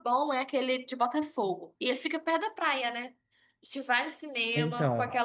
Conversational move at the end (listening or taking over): listening